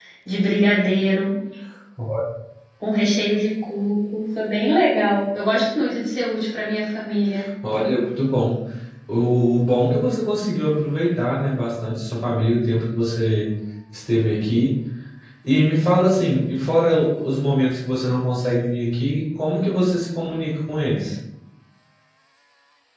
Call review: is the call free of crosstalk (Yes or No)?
Yes